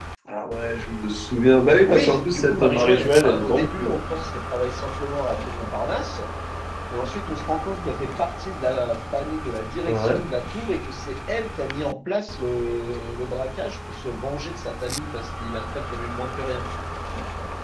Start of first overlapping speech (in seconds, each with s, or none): 1.8 s